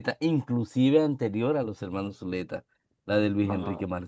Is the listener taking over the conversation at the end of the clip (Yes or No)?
No